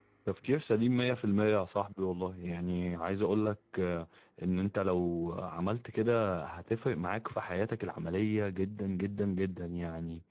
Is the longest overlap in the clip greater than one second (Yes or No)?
No